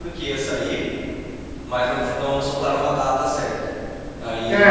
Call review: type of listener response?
listening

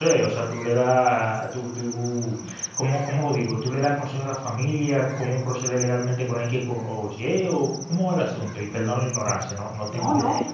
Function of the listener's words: taking over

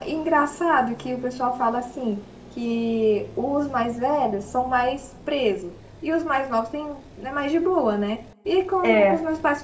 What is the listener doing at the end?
listening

